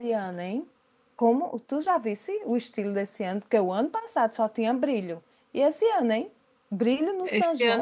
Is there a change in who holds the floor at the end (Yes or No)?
Yes